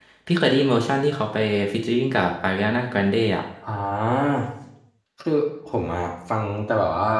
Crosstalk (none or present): none